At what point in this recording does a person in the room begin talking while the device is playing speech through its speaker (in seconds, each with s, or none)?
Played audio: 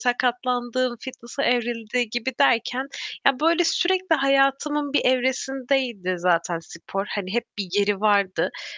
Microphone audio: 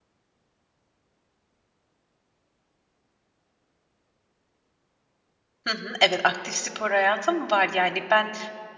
5.7 s